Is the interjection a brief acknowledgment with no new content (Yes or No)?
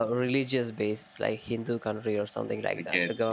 Yes